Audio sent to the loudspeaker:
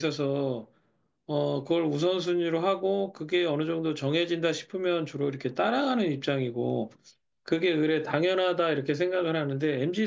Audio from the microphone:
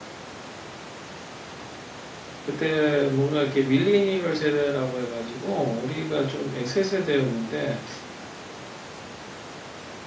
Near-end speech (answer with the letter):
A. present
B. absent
A